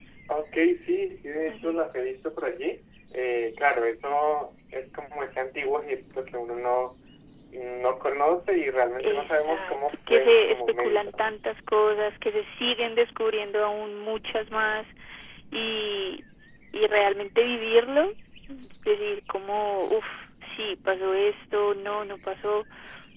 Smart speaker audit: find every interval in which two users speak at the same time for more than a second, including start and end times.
9.0-11.1

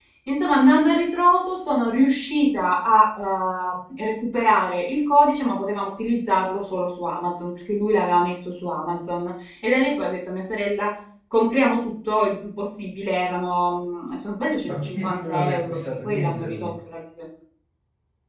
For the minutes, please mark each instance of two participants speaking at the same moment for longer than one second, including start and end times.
14.7-16.7

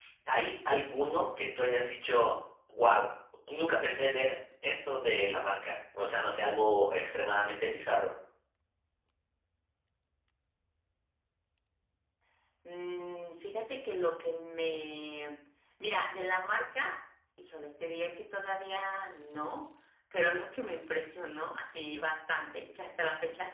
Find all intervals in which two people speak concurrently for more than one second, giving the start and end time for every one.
none

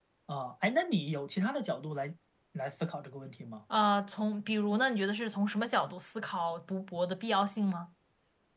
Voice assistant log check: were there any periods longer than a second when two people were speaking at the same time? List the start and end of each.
none

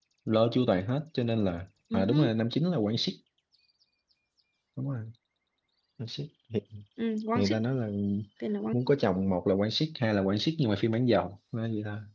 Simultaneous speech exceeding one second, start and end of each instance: none

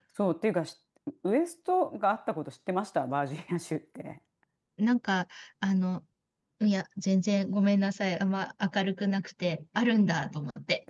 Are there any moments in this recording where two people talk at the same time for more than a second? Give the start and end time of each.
none

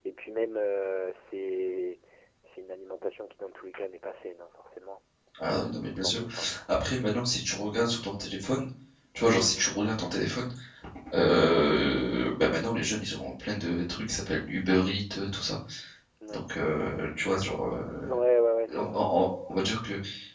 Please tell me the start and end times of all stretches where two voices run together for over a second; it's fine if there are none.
none

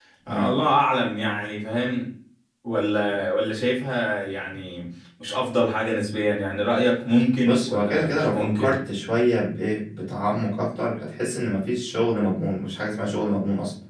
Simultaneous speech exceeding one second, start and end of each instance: 7.4-8.7

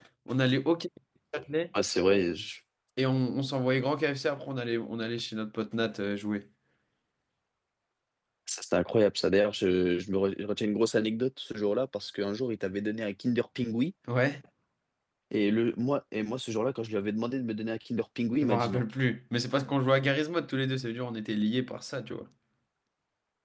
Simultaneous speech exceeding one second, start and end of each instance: none

